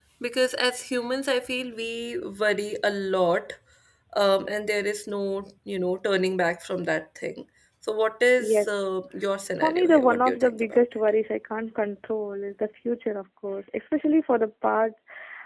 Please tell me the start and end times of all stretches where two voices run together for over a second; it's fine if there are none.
9.6-10.8

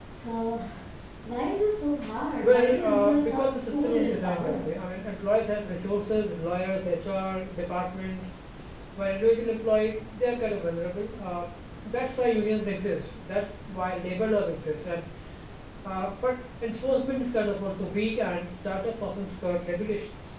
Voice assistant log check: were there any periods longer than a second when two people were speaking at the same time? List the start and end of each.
2.4-4.8

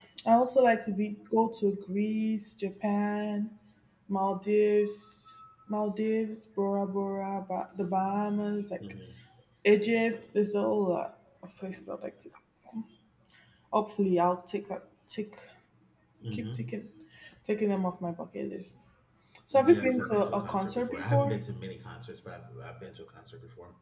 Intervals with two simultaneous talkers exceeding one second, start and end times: 19.5-21.4

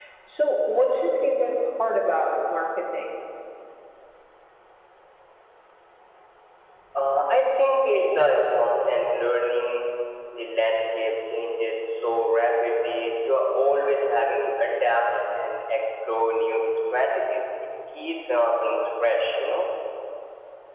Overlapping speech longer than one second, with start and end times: none

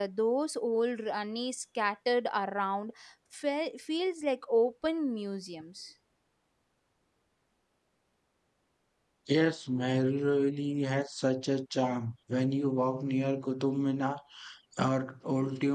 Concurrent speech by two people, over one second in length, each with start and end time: none

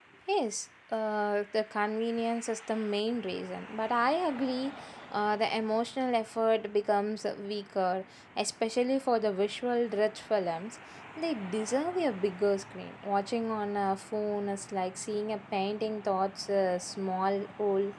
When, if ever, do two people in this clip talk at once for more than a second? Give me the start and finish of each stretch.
none

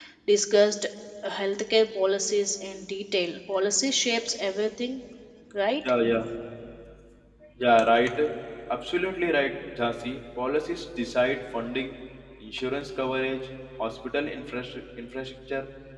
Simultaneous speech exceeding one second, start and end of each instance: none

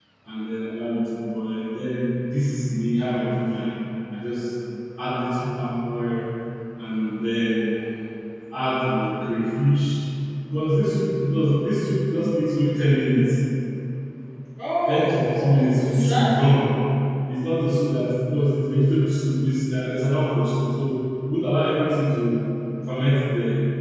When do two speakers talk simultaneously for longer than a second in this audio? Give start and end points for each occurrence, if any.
14.9-16.3

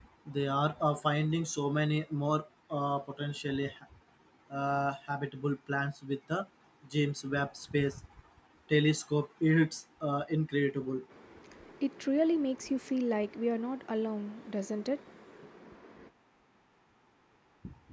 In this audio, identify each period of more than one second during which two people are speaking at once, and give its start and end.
none

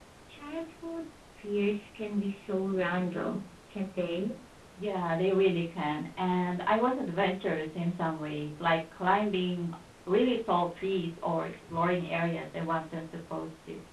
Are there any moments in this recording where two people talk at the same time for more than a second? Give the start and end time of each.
none

